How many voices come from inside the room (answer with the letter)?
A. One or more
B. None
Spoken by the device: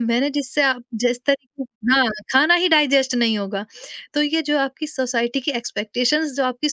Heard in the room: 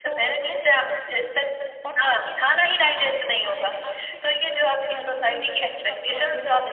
A